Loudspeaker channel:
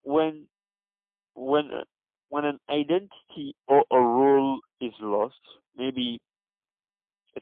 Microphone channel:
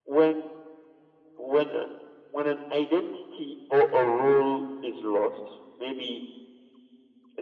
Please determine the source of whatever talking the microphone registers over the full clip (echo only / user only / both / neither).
echo only